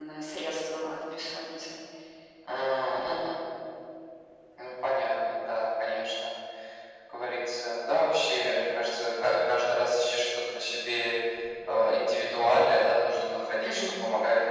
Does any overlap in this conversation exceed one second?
No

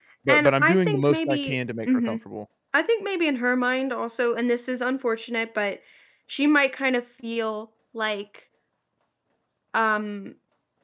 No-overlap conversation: No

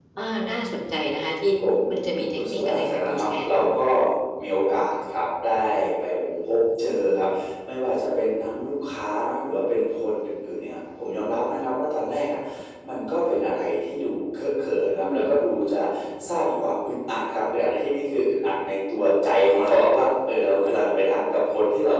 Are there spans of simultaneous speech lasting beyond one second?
Yes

